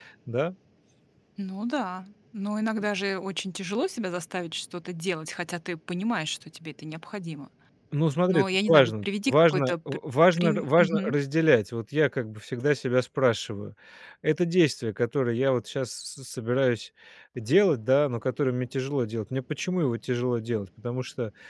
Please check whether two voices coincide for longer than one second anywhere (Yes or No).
Yes